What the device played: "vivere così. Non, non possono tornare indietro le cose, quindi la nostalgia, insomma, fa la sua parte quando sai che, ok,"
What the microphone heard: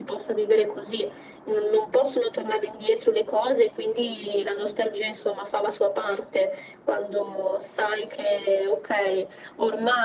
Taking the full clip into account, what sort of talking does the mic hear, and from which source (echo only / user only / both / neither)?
echo only